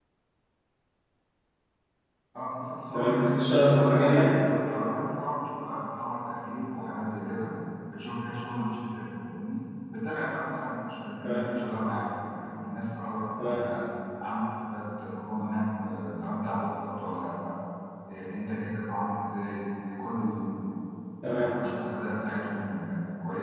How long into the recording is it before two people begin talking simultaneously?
3 s

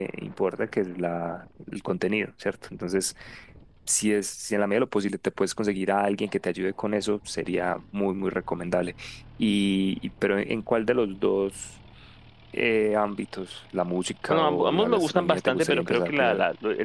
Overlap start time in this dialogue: 14 s

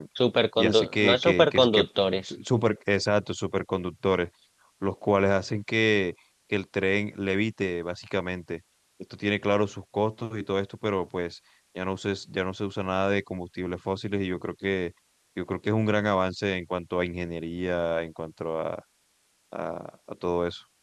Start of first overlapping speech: 1 s

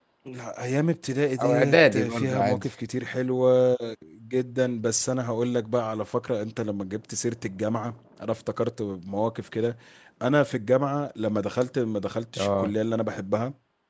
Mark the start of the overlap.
1 s

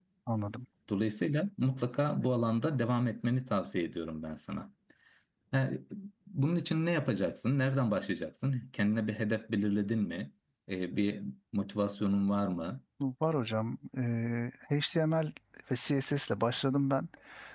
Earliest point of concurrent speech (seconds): none

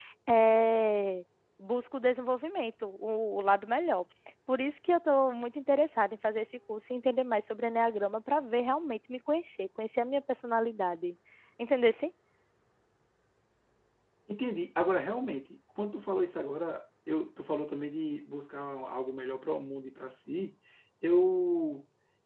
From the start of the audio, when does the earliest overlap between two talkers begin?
none

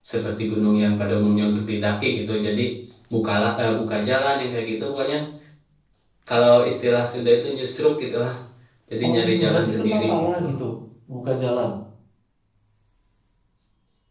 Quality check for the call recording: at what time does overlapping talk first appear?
9 s

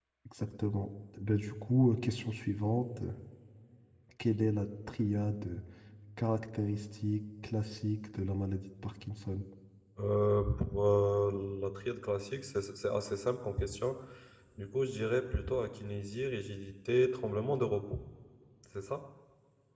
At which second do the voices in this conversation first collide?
none

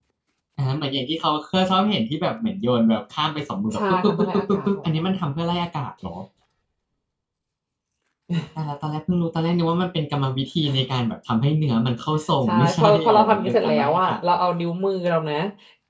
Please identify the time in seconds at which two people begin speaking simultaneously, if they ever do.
4 s

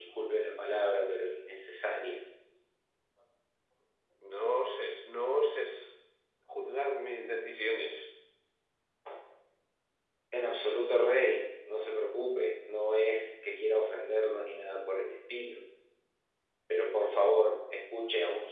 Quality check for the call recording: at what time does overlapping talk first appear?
none

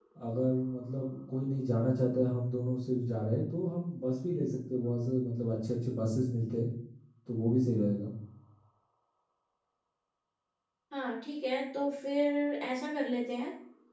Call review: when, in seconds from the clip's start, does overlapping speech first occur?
none

